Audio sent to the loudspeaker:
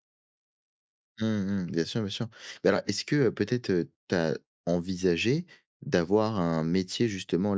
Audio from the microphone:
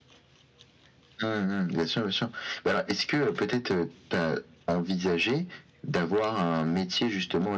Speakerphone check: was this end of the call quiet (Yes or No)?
Yes